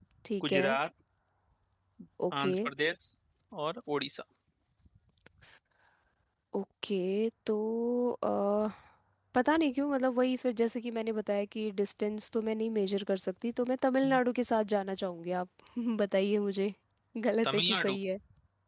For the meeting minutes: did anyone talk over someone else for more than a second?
No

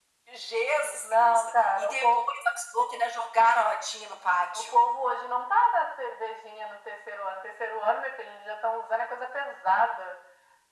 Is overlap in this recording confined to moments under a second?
No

